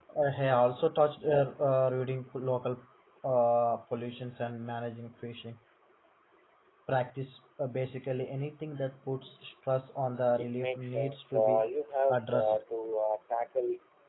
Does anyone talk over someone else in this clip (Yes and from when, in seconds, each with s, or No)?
Yes, from 10.4 s